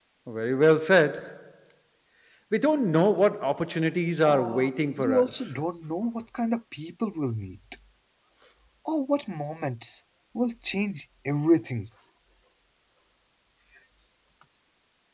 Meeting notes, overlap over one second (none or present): present